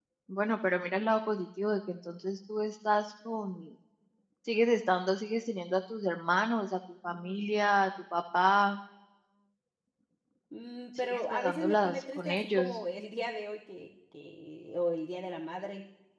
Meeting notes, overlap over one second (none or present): present